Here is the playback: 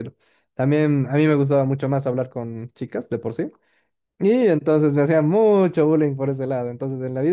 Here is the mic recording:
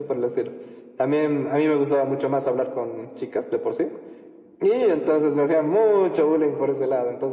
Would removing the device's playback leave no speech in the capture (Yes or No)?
Yes